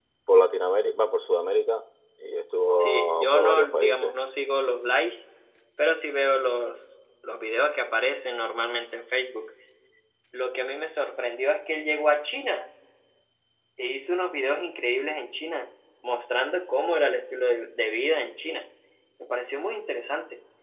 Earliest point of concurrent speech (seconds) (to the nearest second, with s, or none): 3 s